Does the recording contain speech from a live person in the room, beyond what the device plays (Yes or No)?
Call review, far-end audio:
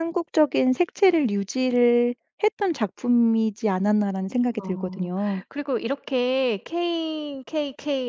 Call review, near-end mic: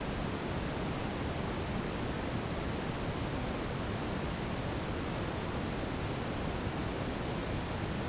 No